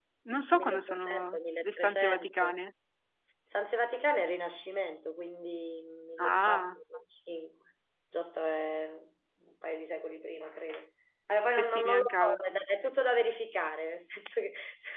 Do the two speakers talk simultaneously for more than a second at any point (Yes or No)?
Yes